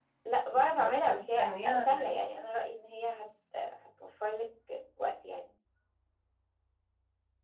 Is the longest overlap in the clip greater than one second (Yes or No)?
Yes